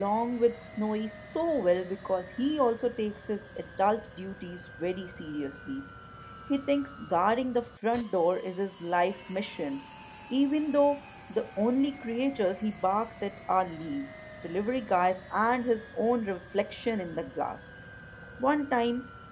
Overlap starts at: none

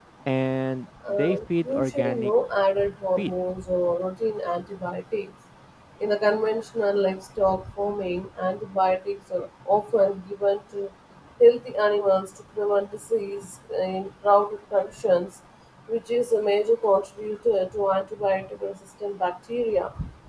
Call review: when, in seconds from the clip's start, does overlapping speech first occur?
1.1 s

